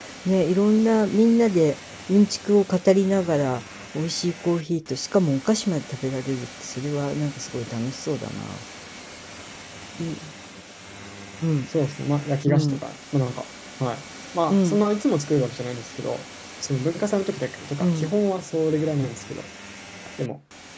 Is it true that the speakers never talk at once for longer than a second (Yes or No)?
Yes